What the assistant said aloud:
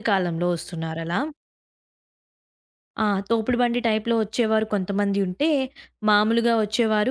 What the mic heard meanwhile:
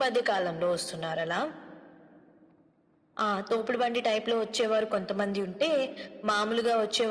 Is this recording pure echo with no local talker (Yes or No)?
Yes